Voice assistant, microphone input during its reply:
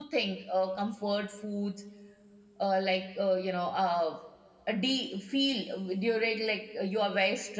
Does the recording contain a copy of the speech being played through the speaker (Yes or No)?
No